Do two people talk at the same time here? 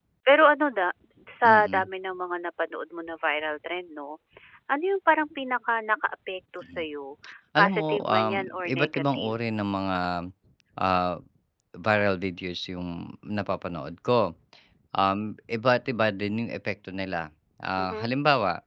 Yes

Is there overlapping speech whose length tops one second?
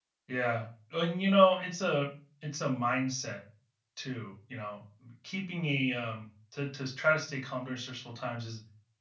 No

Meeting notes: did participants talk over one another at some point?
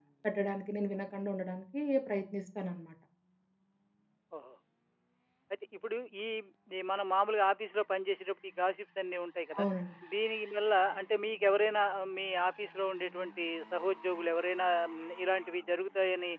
No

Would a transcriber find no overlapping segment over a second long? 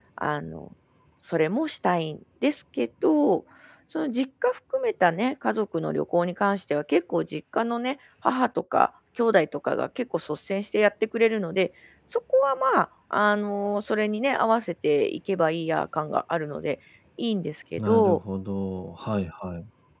Yes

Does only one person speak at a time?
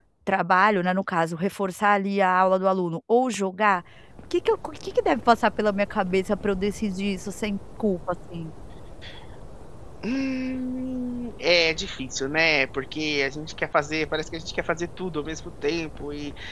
Yes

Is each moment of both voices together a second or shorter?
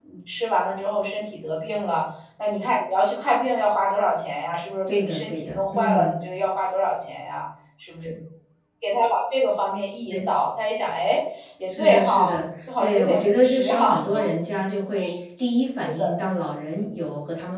No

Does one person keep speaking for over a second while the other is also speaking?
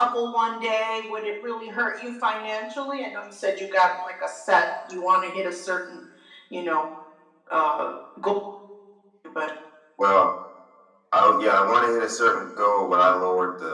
No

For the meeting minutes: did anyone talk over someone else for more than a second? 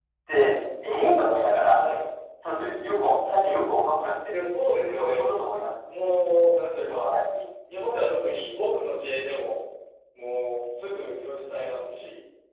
No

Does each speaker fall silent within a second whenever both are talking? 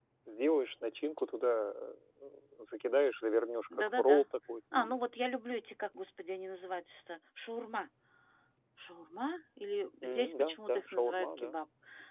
No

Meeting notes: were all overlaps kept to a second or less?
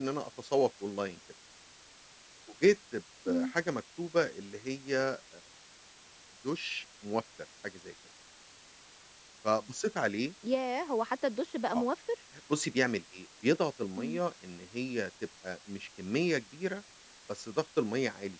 Yes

